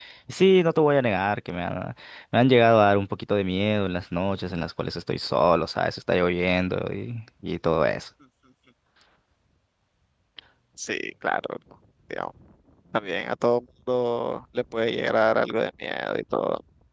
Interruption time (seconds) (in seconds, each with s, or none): none